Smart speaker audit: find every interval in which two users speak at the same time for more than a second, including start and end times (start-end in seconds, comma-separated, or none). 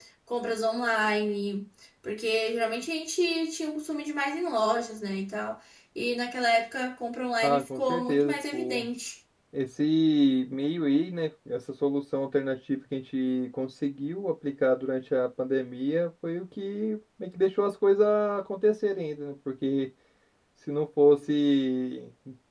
7.4-8.9